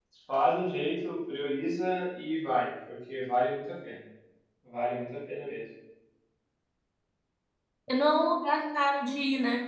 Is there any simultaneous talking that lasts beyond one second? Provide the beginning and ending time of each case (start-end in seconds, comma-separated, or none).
none